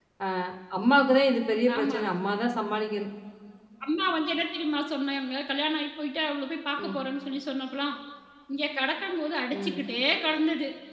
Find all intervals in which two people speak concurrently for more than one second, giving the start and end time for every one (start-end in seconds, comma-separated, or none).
none